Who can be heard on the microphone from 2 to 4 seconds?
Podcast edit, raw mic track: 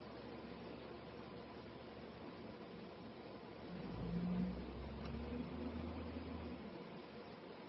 neither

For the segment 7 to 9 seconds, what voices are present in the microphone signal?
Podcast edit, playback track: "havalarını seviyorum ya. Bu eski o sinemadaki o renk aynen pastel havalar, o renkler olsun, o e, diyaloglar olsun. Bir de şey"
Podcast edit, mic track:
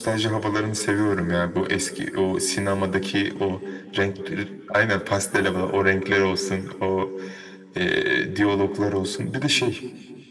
echo only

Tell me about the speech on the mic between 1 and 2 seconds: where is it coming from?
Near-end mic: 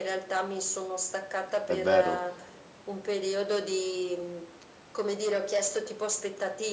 both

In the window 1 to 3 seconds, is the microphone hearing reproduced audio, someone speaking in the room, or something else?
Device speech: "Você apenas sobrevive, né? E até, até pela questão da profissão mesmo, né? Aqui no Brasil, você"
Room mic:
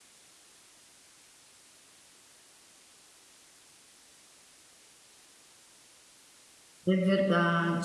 neither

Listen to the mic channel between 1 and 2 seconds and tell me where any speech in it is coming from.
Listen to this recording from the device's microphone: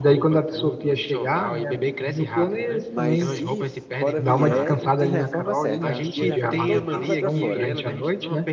echo only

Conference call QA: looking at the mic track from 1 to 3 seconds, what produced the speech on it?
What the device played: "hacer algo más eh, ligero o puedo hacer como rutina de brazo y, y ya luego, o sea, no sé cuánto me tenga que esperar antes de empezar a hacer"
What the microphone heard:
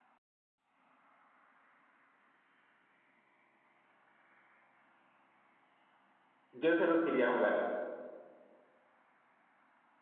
neither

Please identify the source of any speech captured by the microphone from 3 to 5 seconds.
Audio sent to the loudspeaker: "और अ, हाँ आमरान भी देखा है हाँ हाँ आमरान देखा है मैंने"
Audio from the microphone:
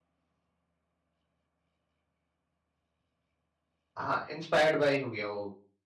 user only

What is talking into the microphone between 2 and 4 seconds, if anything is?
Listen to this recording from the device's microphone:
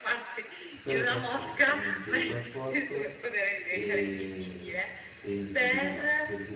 both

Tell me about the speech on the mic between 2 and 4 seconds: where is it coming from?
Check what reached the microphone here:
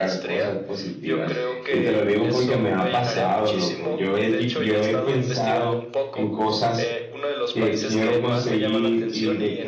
both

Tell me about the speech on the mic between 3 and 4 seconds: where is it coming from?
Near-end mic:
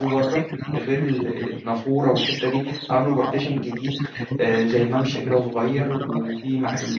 both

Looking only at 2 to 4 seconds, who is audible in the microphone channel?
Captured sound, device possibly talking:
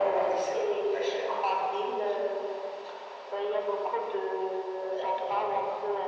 echo only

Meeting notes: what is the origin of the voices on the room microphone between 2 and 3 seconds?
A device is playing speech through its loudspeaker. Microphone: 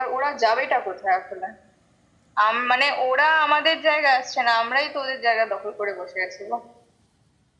echo only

